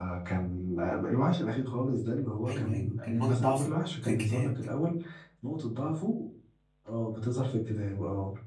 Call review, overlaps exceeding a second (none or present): present